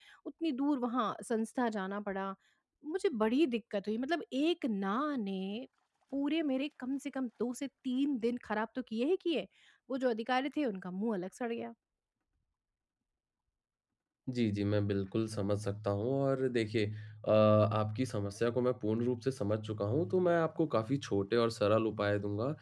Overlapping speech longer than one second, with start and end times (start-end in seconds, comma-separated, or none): none